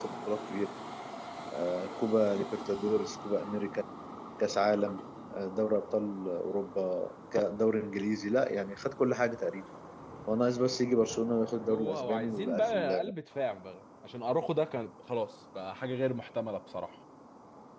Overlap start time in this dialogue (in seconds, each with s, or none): 11.6 s